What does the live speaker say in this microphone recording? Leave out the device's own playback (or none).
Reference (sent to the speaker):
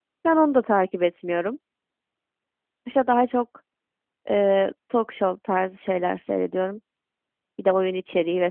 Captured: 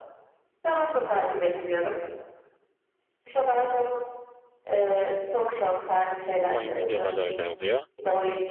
Oyun videoları öyle oluyor.